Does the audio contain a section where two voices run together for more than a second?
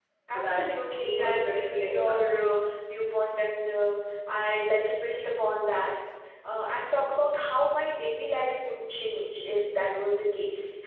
Yes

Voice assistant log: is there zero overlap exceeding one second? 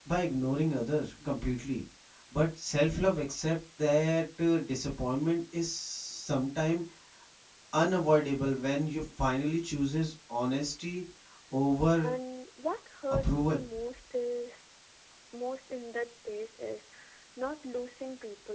Yes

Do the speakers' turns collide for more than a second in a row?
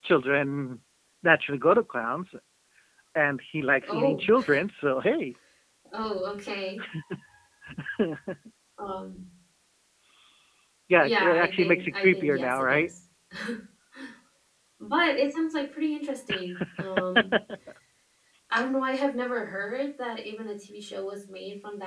Yes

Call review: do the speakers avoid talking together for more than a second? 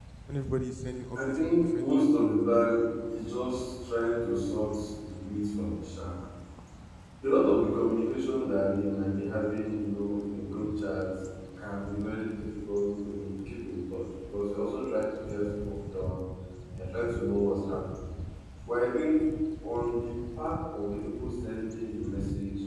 No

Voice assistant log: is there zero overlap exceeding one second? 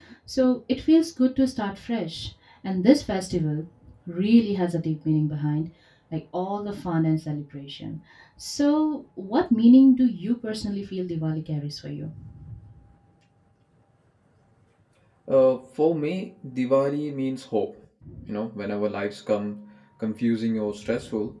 Yes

